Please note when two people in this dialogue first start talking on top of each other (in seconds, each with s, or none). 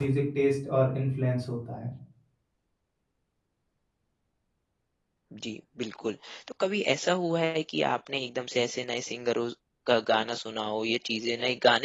none